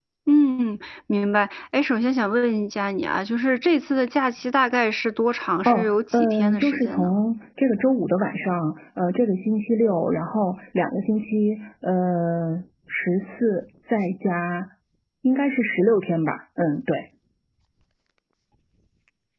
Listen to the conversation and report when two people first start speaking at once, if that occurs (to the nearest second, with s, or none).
6 s